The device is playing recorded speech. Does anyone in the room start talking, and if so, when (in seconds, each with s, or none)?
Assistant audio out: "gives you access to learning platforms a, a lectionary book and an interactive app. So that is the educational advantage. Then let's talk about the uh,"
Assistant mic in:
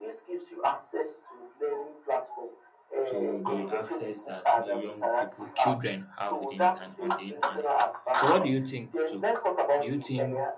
3.1 s